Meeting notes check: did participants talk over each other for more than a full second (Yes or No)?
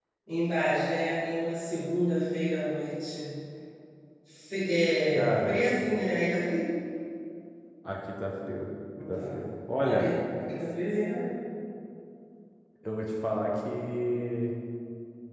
No